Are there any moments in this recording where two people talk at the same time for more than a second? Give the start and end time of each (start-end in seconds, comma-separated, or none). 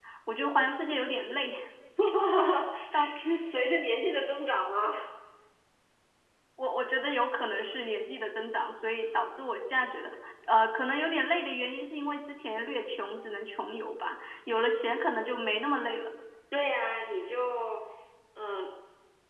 none